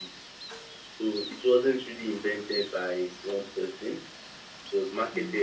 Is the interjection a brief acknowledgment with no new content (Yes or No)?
Yes